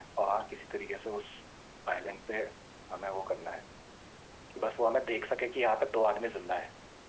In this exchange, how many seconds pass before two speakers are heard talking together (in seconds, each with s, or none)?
none